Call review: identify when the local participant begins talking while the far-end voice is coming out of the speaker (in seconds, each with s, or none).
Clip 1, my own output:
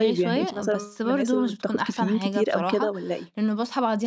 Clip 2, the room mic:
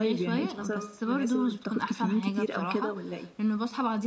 none